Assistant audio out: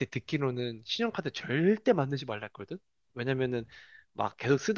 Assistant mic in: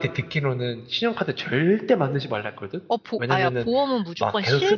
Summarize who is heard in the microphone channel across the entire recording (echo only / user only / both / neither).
both